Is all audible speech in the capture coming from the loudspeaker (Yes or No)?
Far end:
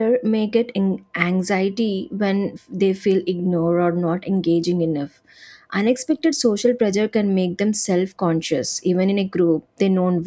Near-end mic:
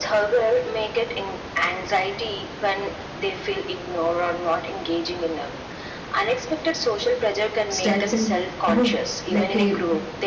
No